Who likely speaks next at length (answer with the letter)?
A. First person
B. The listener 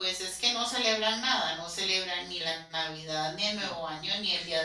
A